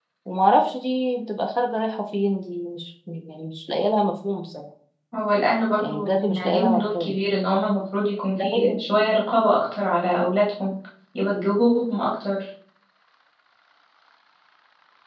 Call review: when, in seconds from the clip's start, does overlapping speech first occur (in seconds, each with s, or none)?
5.8 s